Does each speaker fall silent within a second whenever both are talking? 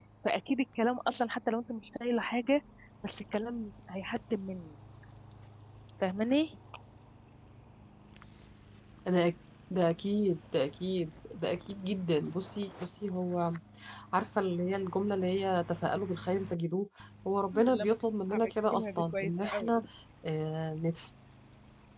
No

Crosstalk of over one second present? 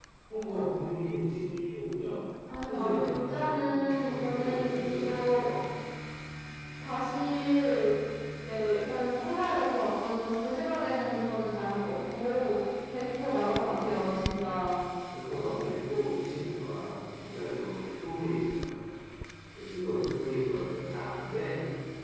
Yes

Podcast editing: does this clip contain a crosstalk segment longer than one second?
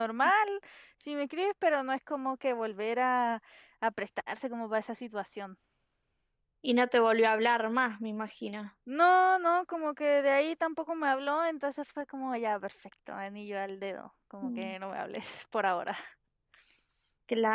No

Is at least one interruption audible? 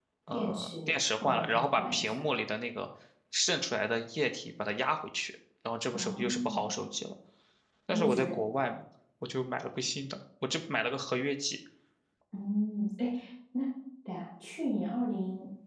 Yes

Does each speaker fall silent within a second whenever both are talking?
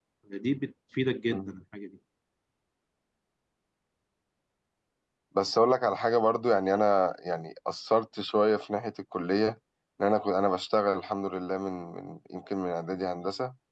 Yes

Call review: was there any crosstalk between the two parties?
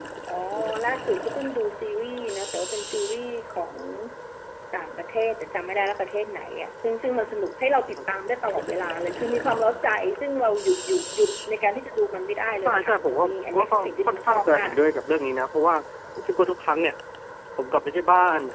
Yes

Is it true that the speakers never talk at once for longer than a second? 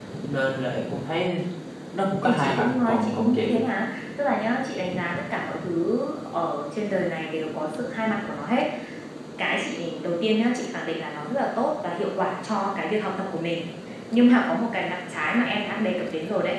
No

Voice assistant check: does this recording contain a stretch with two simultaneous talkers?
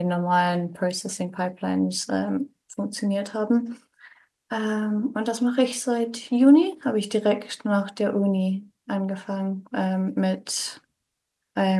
No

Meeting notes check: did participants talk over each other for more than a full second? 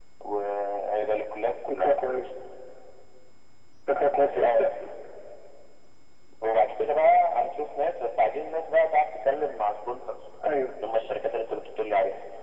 No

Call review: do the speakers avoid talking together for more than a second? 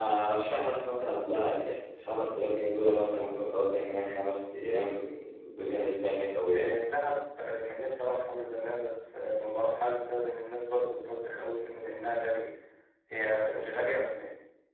Yes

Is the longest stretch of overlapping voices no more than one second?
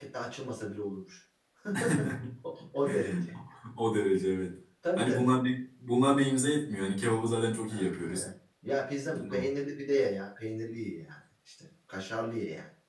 Yes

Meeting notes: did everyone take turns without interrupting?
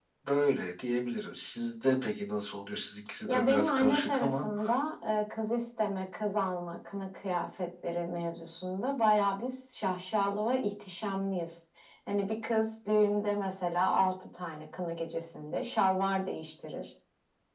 No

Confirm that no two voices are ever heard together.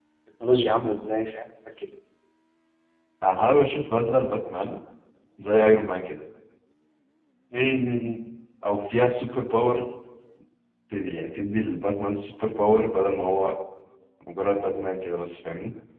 Yes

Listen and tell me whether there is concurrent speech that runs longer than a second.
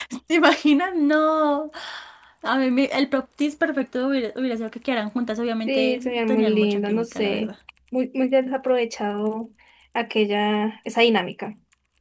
Yes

